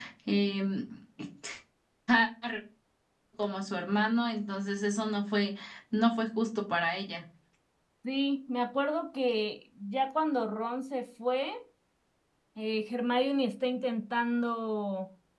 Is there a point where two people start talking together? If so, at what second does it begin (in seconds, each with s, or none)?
none